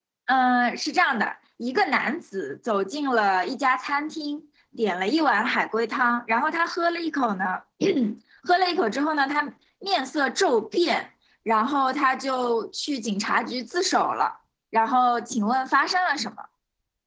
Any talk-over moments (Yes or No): No